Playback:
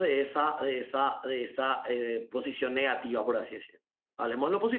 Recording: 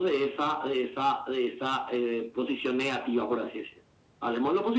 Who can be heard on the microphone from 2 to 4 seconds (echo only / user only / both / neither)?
echo only